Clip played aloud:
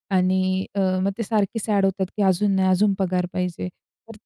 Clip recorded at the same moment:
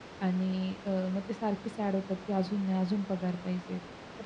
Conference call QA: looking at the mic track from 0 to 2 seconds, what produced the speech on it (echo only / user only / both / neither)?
echo only